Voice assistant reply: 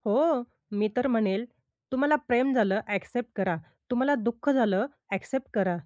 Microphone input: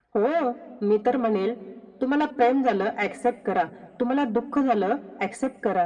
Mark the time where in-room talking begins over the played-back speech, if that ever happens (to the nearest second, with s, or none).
none